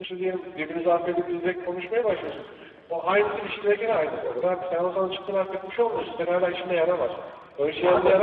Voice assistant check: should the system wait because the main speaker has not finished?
Yes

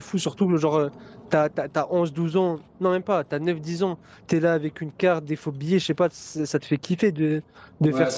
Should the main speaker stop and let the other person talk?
No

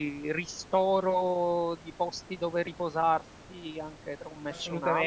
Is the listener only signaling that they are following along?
No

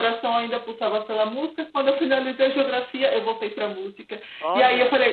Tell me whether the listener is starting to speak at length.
No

